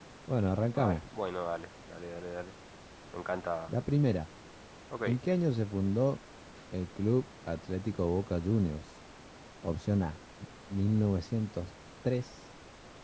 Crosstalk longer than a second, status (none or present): none